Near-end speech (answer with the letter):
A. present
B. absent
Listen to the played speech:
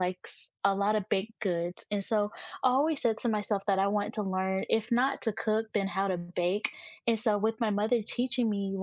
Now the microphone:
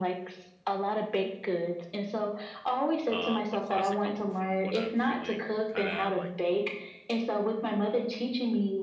A